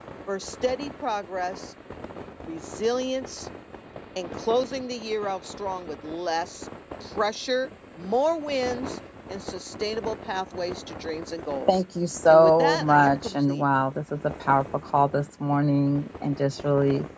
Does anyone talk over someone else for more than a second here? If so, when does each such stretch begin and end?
12.3-13.6

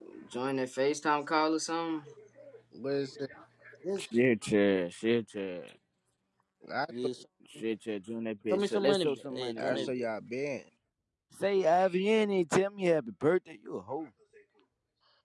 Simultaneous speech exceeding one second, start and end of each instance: 8.5-10.1

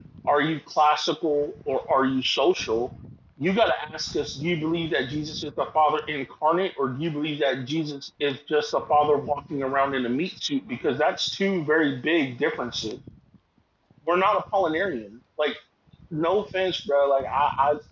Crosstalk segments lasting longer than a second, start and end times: none

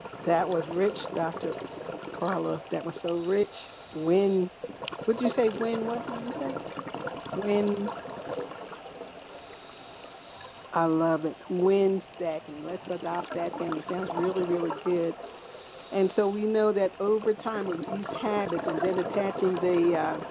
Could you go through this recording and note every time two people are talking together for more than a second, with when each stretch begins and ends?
none

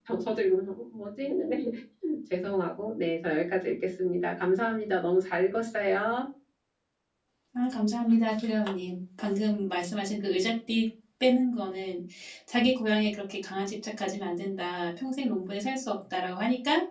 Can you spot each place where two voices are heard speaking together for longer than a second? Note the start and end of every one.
none

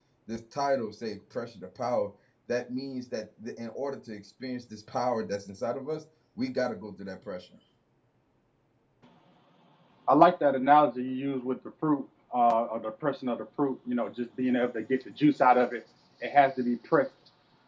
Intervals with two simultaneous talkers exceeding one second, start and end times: none

